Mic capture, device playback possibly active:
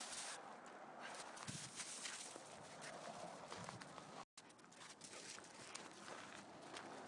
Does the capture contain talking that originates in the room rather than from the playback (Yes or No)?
No